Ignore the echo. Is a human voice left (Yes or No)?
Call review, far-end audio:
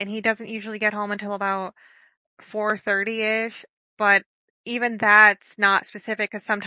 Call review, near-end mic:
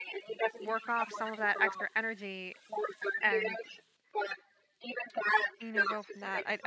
Yes